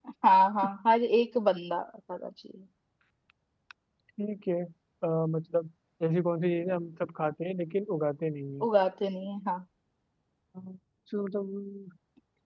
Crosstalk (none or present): none